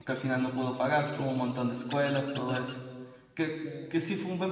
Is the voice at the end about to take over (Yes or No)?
No